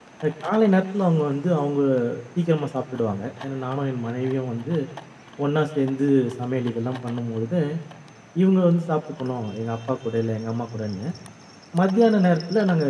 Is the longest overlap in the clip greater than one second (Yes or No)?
No